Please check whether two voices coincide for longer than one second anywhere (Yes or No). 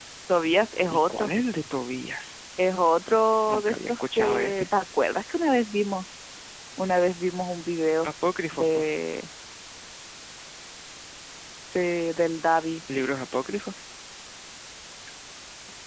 Yes